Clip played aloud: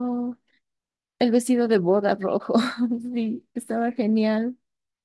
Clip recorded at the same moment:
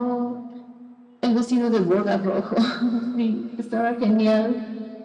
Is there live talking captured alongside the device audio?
No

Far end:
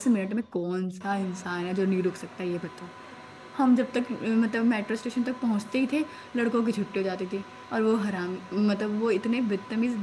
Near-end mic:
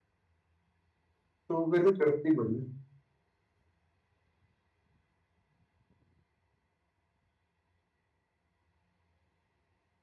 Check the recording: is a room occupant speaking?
Yes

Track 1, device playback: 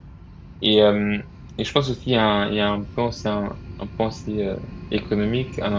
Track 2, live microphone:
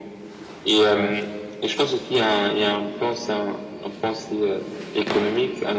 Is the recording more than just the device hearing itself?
Yes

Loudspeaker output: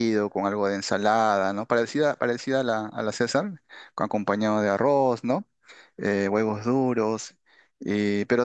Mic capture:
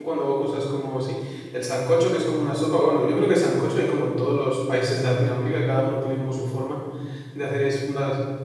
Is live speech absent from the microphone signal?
No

